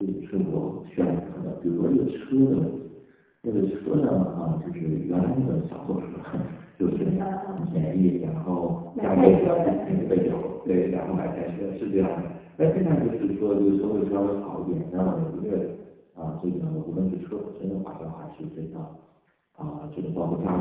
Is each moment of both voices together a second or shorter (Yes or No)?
No